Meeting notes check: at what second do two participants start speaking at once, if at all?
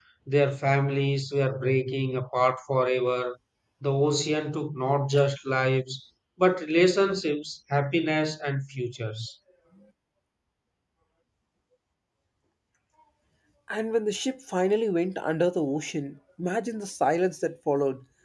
none

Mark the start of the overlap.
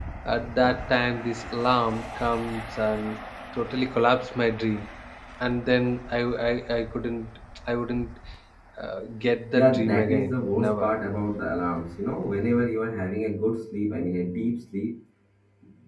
10 s

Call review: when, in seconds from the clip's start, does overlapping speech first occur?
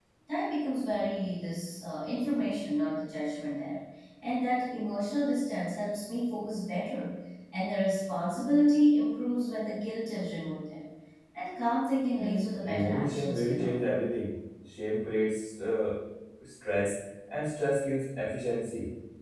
12 s

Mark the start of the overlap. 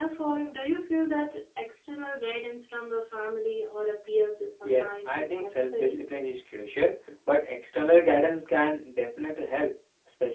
5 s

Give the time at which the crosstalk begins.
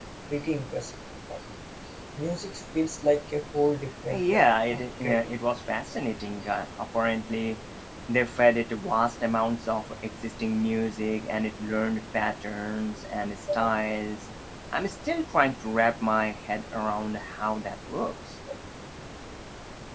4 s

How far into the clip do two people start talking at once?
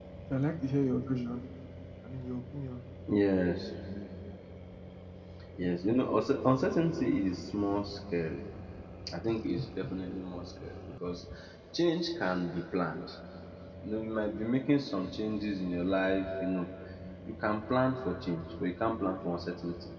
none

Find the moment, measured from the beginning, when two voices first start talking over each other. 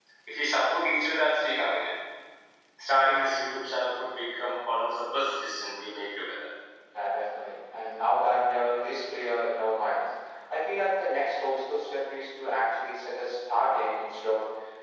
none

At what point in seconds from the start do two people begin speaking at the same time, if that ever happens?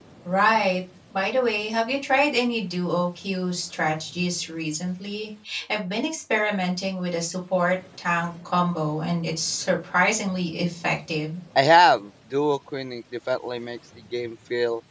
none

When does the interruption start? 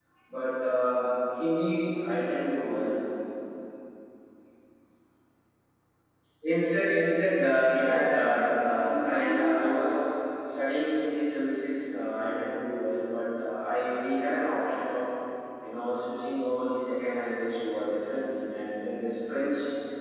8 s

